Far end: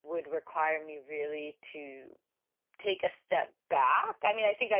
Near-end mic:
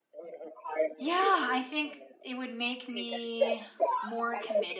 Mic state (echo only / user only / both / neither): both